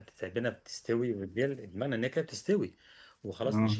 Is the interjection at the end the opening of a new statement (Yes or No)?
No